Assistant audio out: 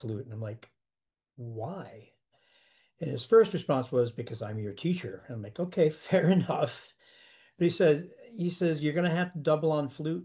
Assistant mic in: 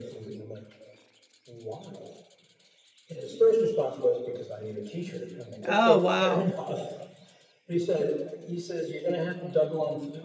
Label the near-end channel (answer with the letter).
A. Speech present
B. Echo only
A